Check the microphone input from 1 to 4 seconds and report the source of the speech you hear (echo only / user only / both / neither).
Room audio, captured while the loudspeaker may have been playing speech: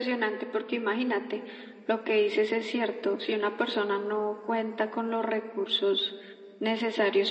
echo only